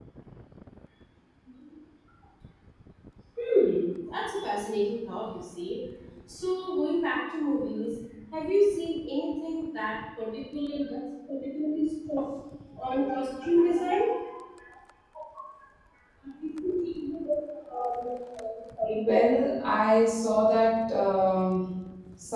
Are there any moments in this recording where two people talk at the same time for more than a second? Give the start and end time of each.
none

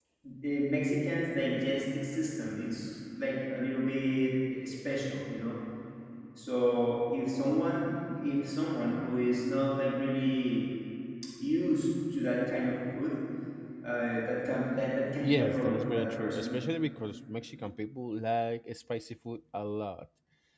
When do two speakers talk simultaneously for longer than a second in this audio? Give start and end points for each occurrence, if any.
15.2-16.6

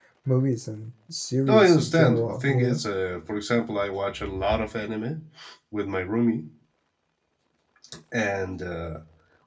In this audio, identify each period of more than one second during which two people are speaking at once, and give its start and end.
1.5-2.8

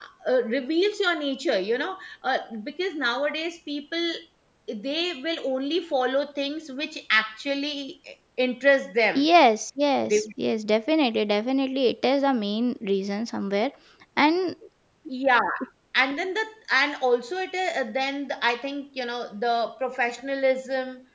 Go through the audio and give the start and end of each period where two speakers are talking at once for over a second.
none

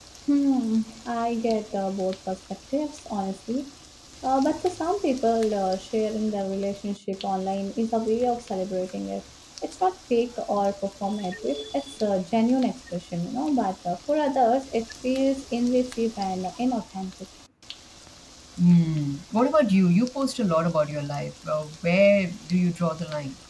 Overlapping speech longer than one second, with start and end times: none

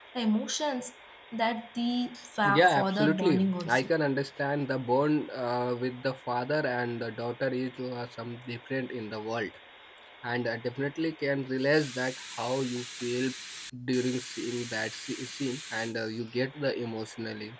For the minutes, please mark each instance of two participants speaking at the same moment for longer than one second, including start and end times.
2.4-3.9

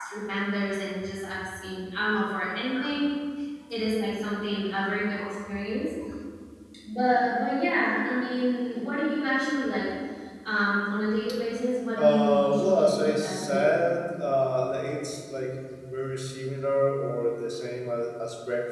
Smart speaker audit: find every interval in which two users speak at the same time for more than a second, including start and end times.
12.0-13.8

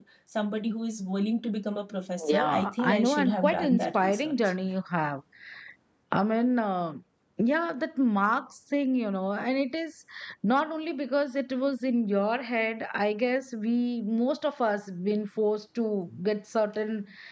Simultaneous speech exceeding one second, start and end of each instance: 2.3-4.3

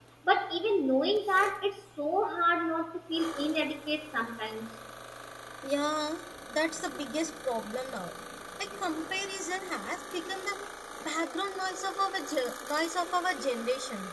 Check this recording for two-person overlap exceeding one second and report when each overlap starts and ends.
none

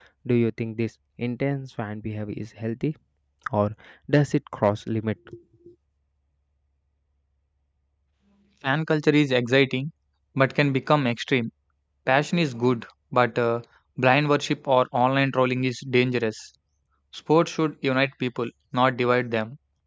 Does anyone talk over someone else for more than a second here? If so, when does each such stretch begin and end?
none

